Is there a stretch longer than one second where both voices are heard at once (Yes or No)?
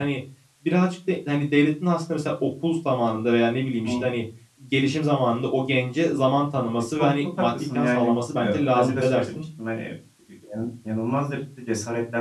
Yes